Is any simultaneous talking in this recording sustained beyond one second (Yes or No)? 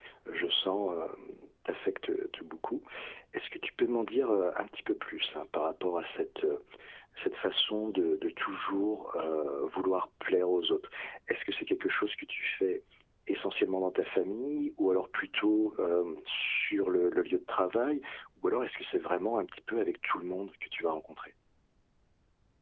No